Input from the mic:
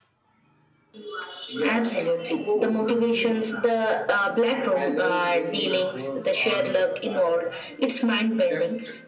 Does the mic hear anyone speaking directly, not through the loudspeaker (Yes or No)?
Yes